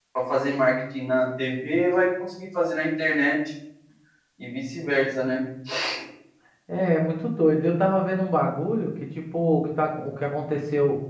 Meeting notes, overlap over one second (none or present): none